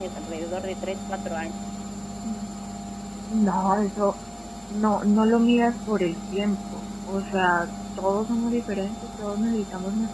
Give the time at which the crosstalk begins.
none

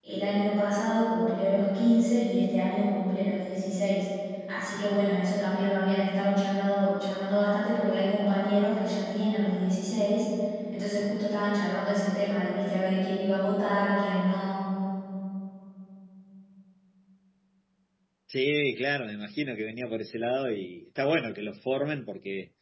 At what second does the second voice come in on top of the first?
none

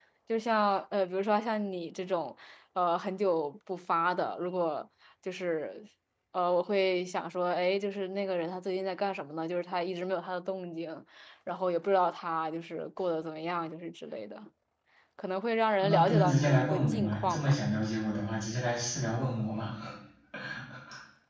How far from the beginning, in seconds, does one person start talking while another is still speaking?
16 s

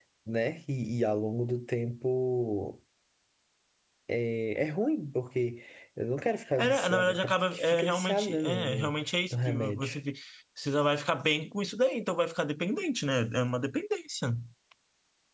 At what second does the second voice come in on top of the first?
7 s

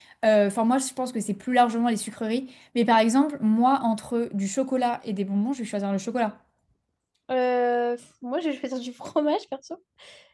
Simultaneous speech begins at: none

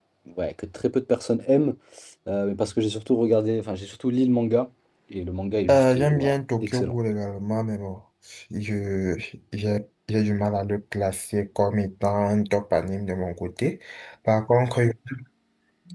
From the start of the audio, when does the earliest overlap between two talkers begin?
6 s

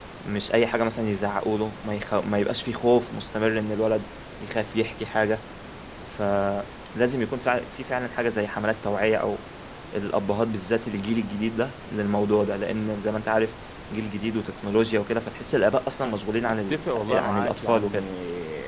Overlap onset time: 16 s

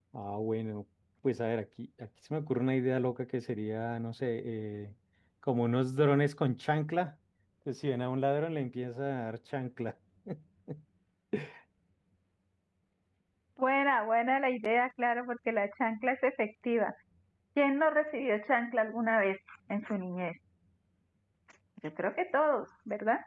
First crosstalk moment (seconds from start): none

